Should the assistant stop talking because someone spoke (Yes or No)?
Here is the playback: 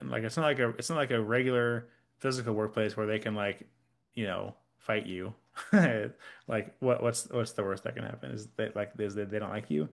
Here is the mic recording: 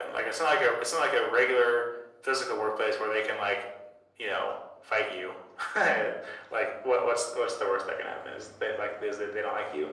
No